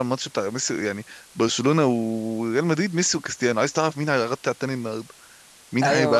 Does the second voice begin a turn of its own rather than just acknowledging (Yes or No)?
Yes